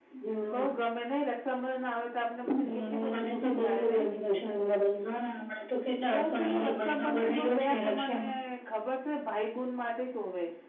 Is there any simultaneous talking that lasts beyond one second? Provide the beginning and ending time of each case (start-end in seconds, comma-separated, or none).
2.4-4.1, 6.0-8.2